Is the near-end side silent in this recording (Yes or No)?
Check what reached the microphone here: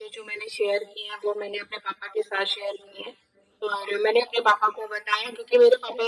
Yes